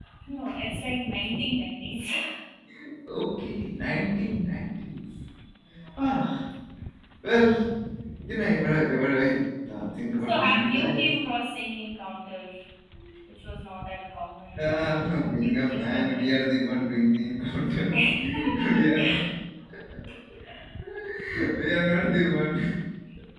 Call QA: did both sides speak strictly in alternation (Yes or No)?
No